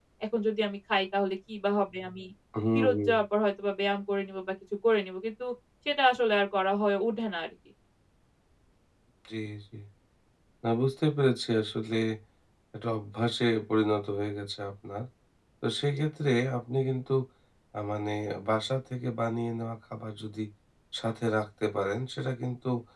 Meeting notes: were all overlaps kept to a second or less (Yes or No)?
Yes